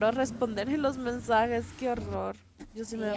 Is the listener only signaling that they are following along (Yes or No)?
No